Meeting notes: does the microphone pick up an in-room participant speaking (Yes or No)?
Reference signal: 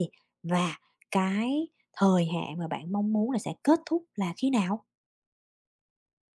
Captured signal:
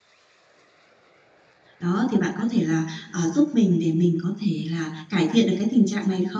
Yes